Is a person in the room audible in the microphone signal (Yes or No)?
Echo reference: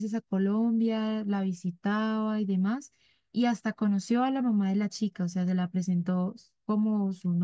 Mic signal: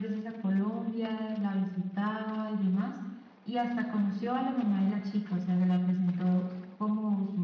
No